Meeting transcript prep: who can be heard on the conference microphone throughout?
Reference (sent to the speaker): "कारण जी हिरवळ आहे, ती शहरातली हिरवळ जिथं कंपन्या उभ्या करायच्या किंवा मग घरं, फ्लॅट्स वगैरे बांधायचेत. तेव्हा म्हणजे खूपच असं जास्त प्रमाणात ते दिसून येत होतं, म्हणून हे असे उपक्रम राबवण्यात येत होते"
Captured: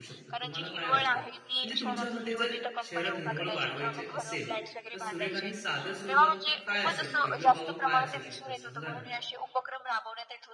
both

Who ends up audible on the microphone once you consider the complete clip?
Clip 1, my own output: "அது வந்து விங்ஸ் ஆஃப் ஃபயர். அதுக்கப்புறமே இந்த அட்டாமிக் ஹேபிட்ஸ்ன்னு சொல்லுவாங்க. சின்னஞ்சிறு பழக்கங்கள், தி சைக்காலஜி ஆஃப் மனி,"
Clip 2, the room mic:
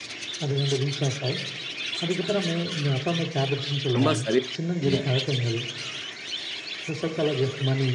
both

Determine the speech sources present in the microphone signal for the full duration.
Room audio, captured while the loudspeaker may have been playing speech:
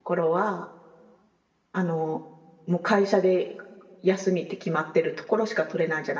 user only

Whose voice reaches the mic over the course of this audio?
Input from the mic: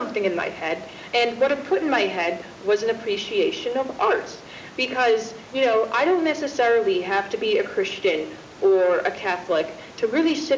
echo only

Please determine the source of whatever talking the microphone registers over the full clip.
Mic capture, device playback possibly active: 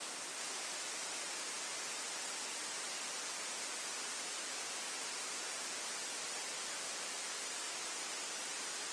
neither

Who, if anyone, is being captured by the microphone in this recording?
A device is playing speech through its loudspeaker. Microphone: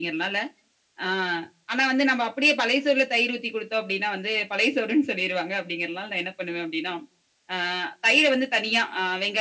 echo only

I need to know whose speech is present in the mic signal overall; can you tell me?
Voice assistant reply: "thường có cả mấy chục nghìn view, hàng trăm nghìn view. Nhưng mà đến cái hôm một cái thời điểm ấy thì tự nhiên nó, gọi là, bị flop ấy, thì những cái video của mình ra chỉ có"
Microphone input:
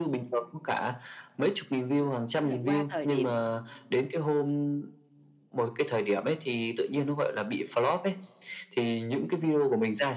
both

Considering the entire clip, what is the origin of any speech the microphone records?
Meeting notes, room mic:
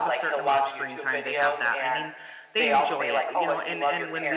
both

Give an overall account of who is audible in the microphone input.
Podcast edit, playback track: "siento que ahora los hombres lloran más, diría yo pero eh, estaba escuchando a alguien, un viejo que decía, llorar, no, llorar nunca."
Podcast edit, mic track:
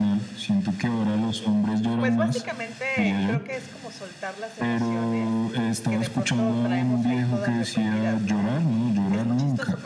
both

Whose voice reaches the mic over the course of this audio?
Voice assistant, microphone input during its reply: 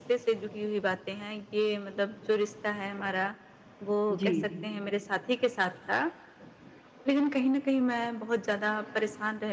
both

